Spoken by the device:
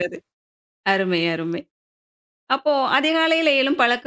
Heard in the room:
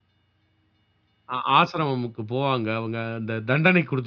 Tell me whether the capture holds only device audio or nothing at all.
No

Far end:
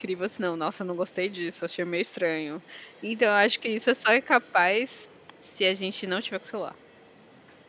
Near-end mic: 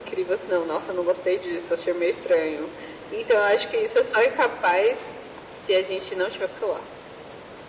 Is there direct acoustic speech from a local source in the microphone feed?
No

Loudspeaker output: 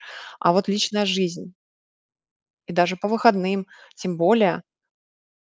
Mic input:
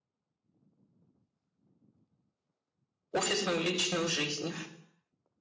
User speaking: Yes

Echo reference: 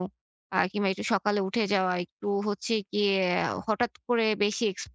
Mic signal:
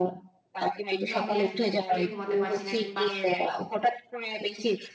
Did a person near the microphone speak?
Yes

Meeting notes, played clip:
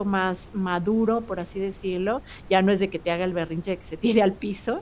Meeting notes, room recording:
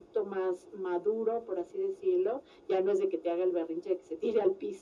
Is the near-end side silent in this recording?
Yes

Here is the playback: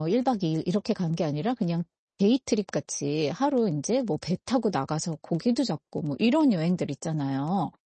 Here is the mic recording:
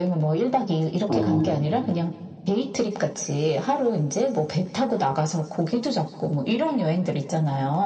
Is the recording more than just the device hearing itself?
Yes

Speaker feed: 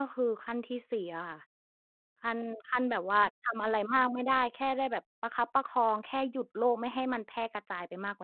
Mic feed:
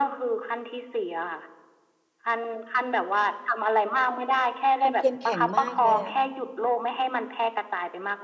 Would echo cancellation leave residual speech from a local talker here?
Yes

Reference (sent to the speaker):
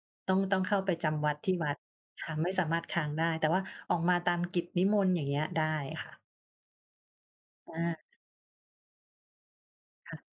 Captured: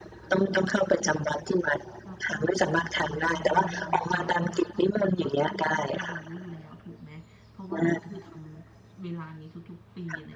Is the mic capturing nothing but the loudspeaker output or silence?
No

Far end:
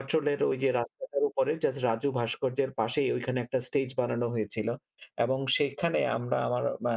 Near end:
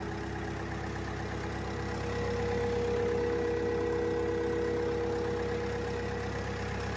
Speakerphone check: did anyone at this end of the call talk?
No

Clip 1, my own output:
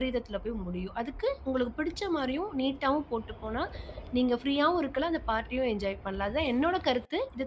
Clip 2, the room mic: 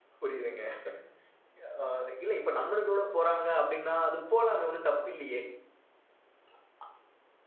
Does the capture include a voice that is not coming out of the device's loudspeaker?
Yes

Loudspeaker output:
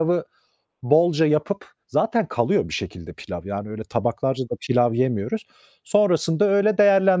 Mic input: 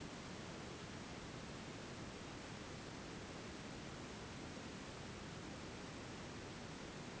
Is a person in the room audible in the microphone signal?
No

